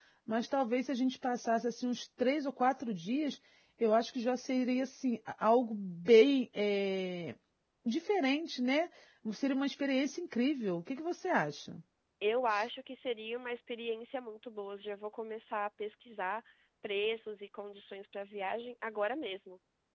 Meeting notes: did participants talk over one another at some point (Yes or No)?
No